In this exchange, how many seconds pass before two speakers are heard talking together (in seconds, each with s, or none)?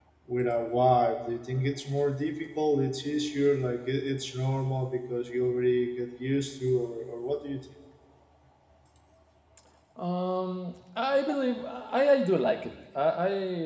none